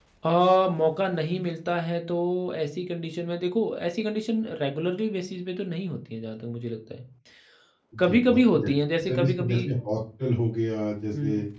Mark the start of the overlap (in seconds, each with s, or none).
8.0 s